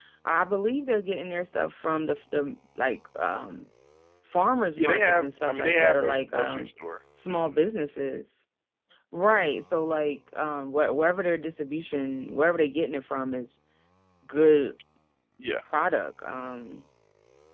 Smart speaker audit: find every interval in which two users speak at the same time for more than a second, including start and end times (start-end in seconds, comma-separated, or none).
4.8-6.7